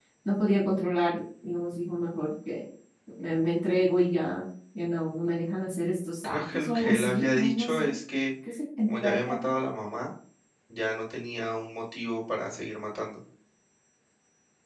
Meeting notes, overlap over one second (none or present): present